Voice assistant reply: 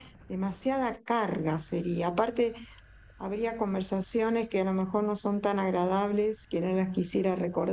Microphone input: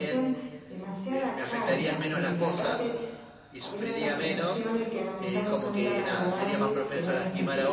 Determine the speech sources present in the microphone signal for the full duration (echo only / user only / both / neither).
both